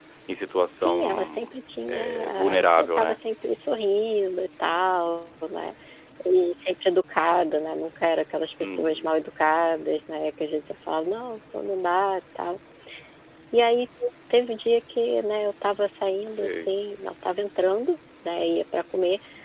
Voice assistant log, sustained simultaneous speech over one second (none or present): present